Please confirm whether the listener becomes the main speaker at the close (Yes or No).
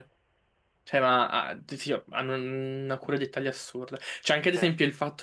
No